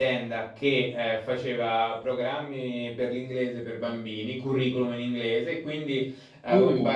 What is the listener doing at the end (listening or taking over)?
listening